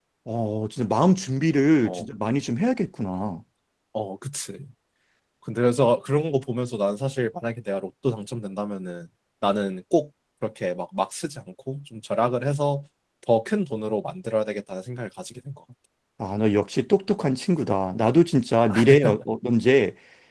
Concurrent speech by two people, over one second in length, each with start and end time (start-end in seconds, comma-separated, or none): none